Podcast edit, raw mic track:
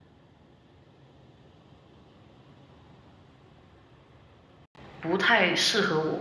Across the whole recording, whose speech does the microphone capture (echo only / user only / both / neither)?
user only